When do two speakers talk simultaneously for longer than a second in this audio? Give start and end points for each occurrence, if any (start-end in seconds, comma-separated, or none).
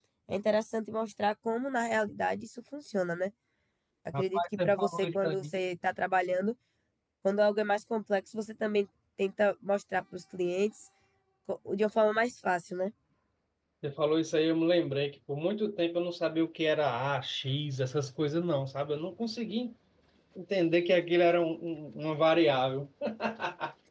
4.1-5.5